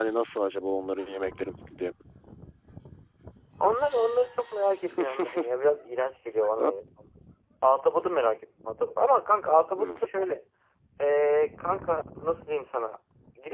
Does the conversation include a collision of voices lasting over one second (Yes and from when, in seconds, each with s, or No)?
No